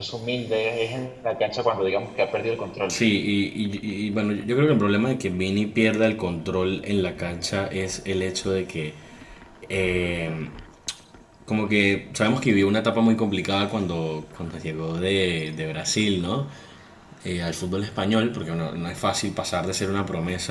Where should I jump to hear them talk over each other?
none

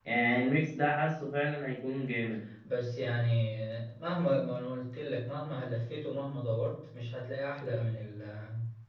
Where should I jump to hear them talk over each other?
none

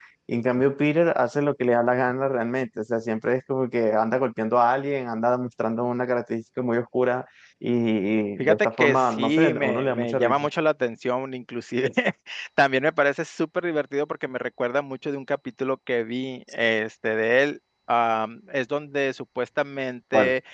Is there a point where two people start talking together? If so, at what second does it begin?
8.4 s

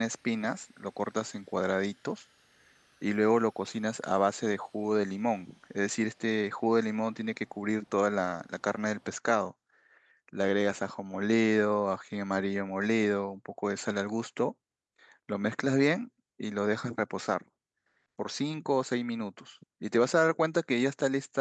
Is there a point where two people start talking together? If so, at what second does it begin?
none

